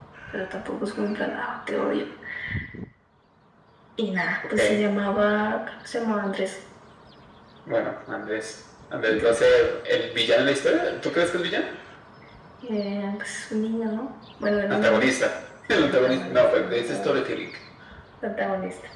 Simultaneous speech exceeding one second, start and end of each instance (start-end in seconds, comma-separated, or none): 15.7-17.2